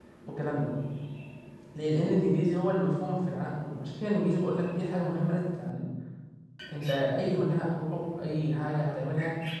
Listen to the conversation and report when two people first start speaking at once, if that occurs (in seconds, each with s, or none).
none